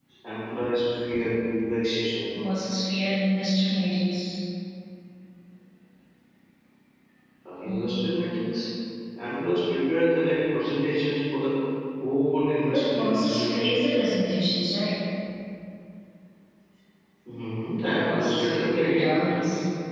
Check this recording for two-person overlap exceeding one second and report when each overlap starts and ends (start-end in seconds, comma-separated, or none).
12.6-13.9, 17.9-19.2